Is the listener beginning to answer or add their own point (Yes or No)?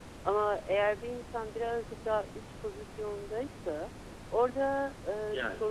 No